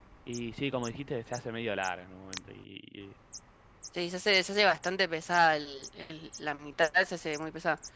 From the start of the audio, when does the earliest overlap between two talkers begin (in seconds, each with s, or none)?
none